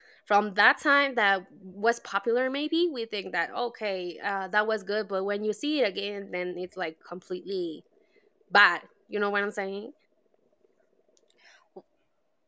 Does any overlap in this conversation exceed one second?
No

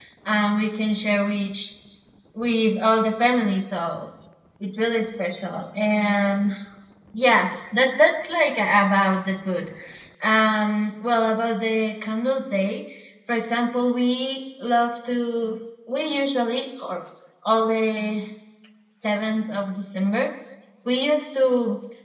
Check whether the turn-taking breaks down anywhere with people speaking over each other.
No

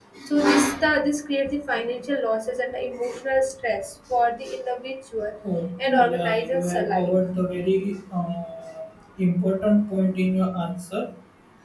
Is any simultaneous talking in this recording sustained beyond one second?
Yes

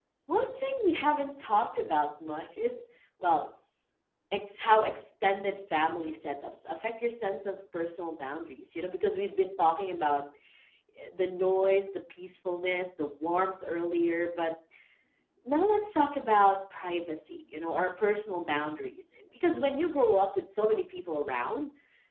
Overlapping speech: No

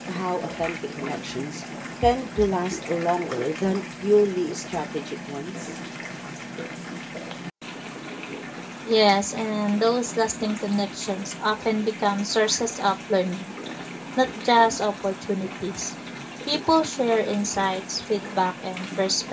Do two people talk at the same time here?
No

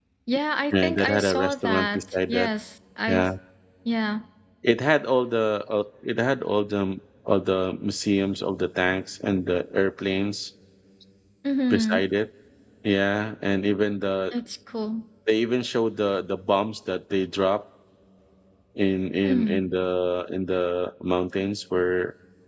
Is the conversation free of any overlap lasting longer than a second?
No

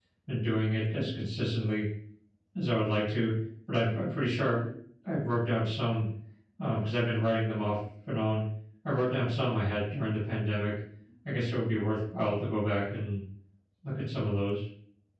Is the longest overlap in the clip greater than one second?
No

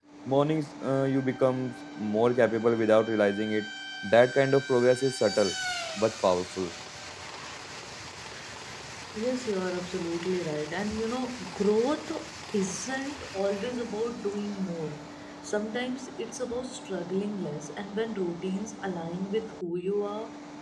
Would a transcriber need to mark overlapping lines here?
No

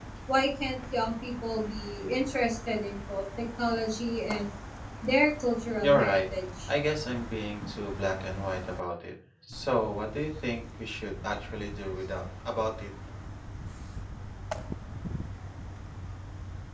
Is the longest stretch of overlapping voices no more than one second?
Yes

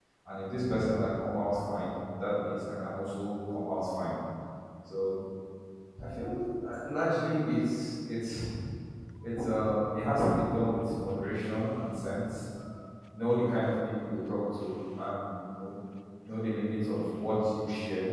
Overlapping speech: No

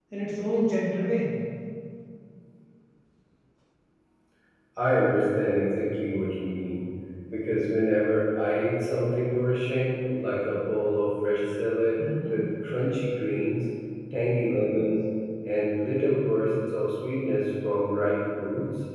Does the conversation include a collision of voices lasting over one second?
No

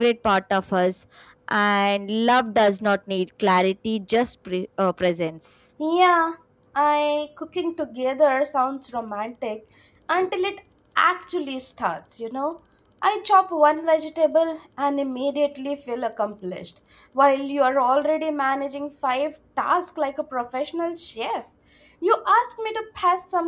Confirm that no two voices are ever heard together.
Yes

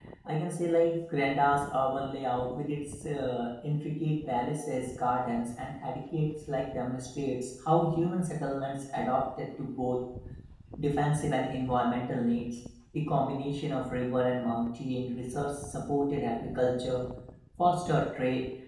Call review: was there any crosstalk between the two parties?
No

